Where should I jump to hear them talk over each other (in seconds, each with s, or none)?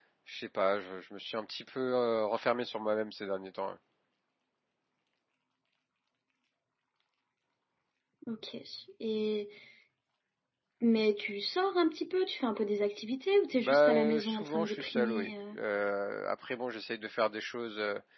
13.5 s